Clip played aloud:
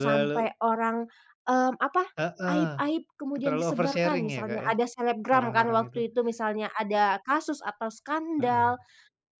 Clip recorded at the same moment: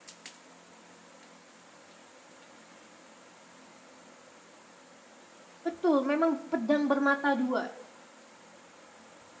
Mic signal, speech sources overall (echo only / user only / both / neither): user only